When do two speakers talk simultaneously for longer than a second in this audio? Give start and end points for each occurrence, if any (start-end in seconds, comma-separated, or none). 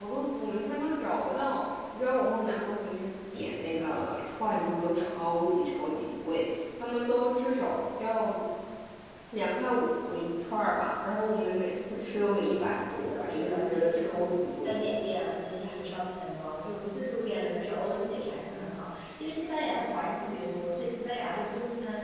13.0-14.2